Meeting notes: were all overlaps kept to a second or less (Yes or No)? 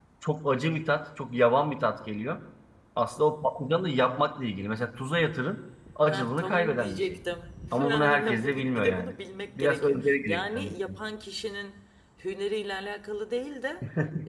No